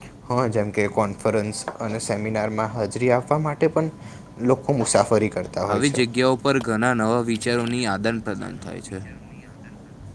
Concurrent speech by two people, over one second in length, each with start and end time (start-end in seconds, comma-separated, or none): none